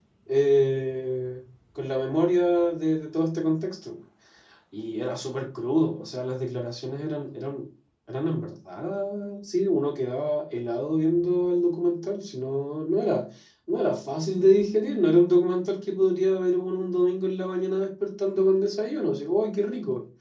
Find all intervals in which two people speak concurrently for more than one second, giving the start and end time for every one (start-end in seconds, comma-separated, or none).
none